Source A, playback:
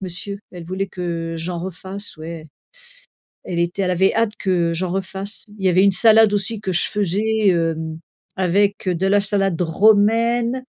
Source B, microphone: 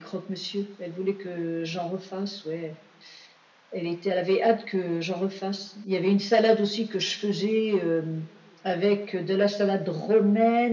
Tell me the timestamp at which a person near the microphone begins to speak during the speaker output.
none

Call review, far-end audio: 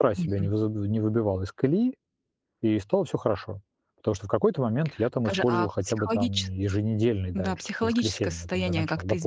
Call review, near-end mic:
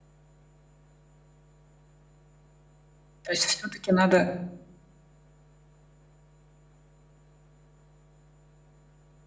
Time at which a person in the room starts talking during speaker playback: 3 s

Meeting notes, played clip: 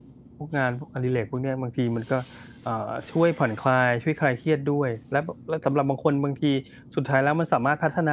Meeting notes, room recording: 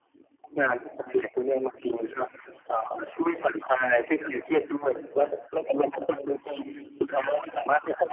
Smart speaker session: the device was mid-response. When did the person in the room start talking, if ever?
none

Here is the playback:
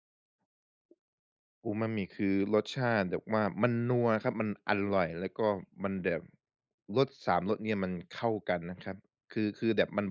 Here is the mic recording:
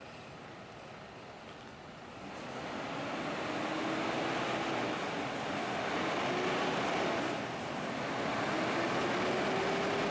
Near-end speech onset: none

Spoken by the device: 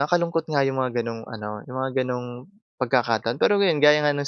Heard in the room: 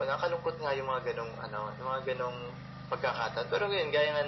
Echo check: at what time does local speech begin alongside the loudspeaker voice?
none

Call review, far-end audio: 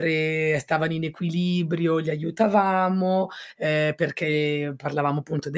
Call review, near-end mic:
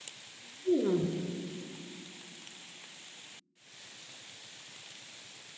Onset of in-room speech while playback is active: 1 s

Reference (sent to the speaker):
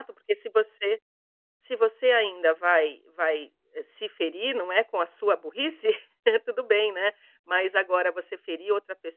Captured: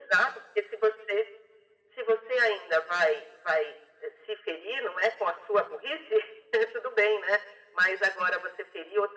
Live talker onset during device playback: none

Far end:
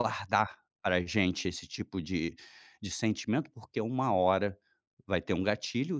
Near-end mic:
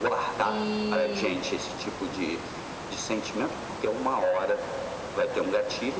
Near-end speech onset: 0 s

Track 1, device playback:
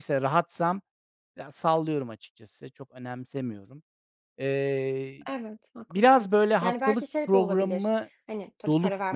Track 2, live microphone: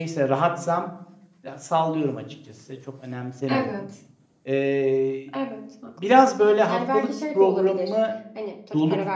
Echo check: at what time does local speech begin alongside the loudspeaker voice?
3 s

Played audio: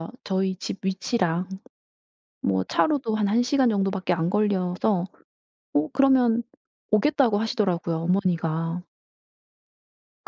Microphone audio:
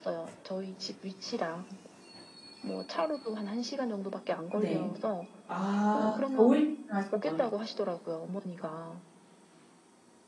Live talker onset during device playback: 5 s

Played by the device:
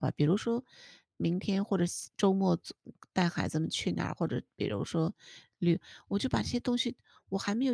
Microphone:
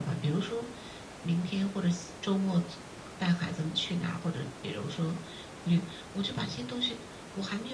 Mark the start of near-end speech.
none

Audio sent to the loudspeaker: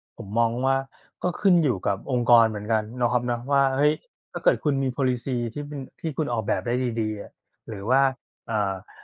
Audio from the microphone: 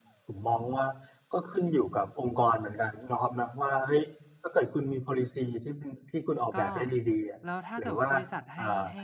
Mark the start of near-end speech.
7 s

